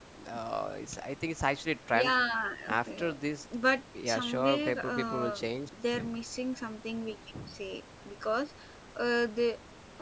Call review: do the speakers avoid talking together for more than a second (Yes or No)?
No